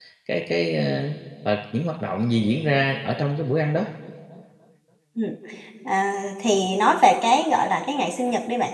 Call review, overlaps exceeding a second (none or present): none